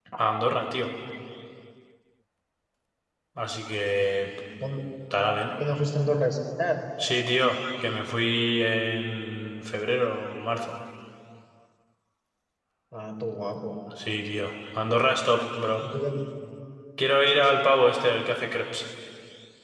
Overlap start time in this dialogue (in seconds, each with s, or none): none